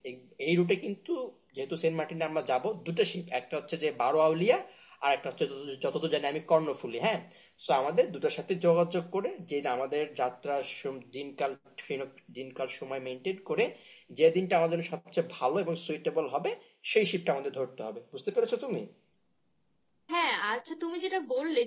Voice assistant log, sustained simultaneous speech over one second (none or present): none